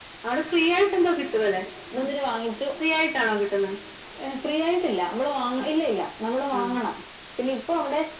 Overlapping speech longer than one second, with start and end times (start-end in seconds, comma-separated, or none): none